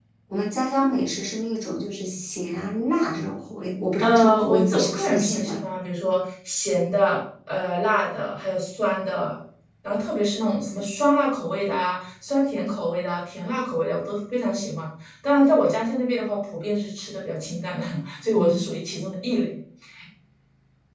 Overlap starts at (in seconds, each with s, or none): 4.0 s